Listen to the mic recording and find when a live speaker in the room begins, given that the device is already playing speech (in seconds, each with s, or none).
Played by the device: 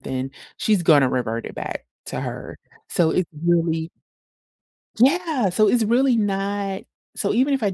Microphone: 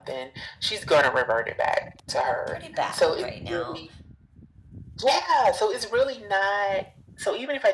2.5 s